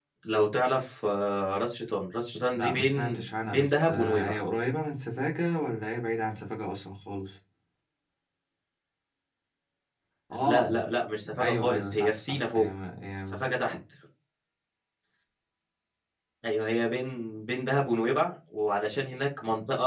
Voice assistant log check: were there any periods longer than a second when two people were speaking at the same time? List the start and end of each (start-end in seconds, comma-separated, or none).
2.5-4.4, 11.4-12.7